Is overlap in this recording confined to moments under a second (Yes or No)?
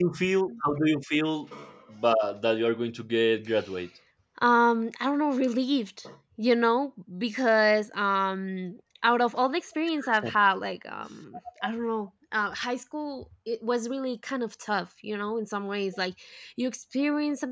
Yes